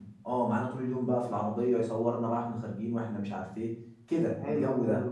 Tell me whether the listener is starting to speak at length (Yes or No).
Yes